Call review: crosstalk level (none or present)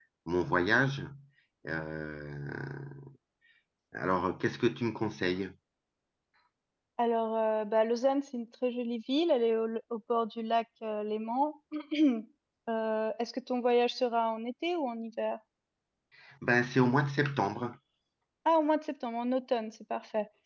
none